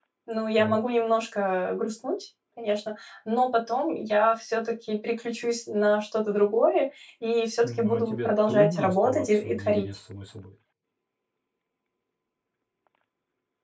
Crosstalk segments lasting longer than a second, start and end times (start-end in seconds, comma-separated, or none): 7.6-9.8